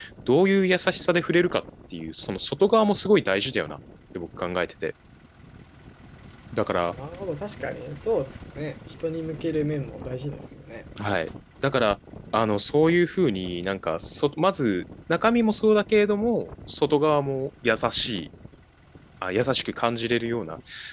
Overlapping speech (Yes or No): No